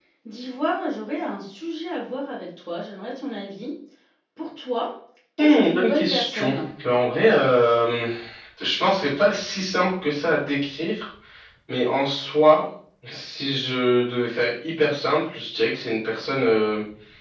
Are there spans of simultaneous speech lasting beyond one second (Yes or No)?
Yes